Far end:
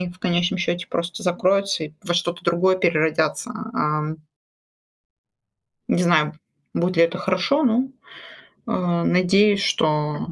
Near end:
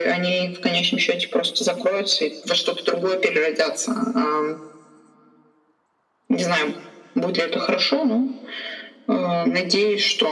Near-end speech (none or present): none